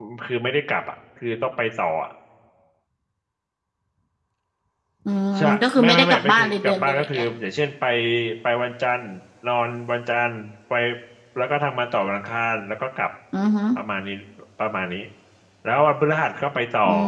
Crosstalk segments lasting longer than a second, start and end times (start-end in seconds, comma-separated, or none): 5.4-7.3